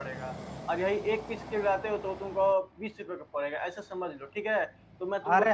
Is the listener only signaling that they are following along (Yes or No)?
No